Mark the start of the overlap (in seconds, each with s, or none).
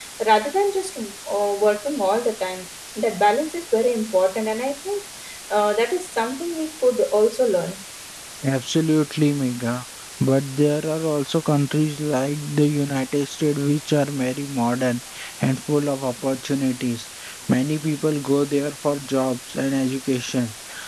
none